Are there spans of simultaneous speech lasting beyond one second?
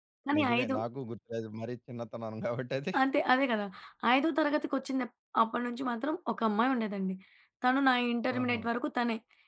No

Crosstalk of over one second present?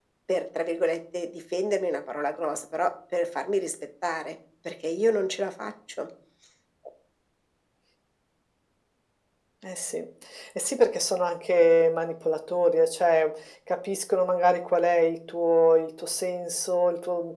No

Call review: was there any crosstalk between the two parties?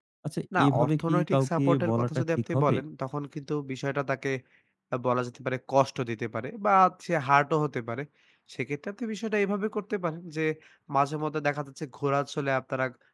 Yes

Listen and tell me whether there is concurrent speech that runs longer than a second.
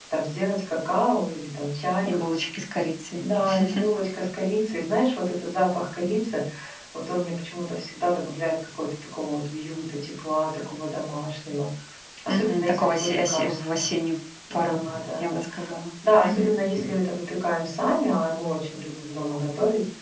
Yes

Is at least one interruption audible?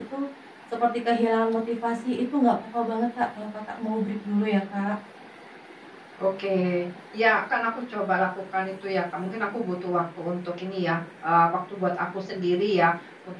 No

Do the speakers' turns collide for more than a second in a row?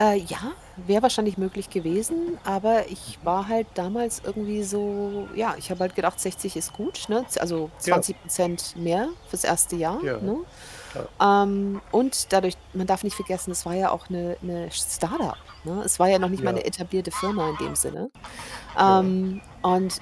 No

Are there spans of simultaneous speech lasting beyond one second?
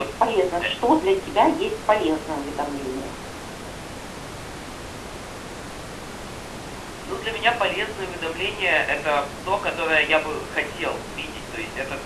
No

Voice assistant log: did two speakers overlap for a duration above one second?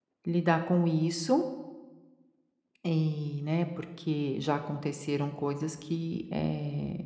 No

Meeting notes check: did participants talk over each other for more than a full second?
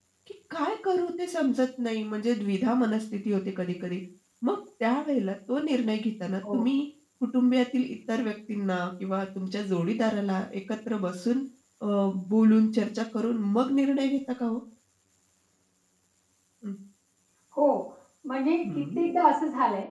No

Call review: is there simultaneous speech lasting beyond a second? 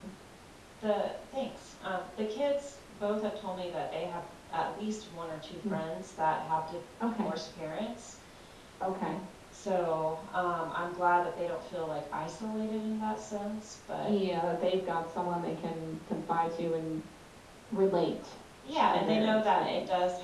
Yes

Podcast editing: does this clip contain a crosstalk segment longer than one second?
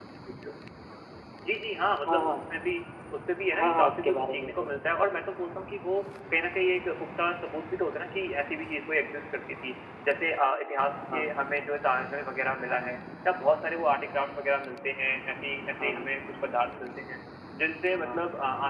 Yes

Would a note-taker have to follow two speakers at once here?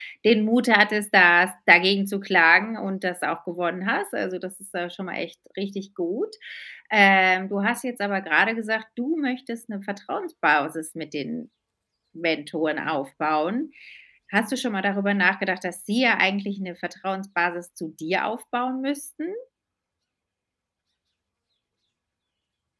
No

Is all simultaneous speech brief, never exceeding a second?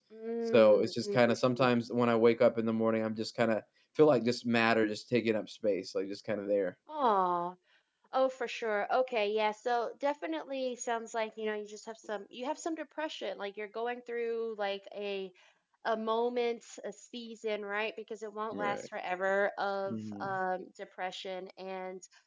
No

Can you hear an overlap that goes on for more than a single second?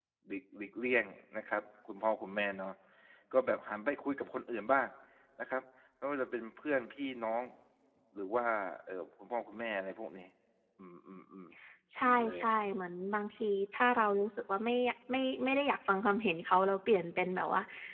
No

